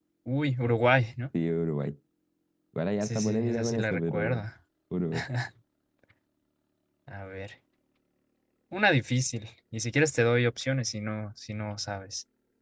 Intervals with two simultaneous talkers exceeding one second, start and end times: 3.0-4.4

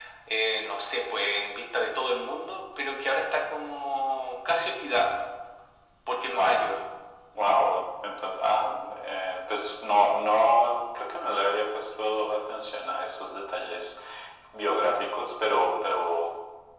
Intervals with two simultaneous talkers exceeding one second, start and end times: none

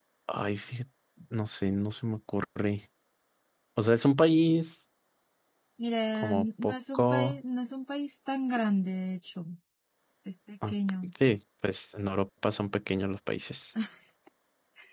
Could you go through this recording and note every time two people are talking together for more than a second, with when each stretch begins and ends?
6.2-7.4

